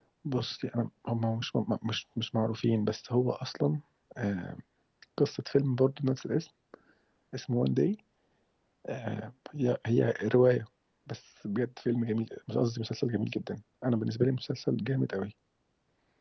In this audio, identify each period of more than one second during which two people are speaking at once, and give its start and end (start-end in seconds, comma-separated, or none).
none